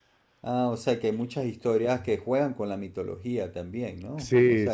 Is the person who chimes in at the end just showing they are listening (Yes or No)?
No